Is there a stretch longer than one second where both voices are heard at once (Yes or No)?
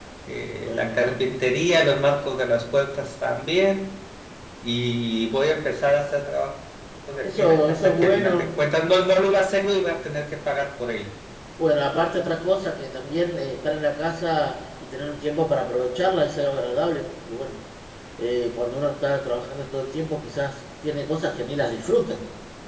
Yes